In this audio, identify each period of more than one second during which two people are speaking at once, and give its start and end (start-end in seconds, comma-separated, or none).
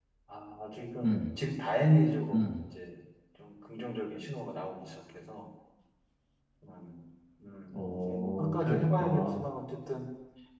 7.7-9.4